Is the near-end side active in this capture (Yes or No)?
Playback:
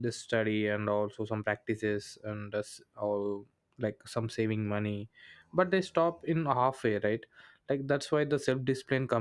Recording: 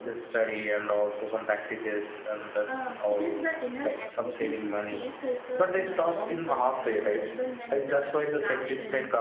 Yes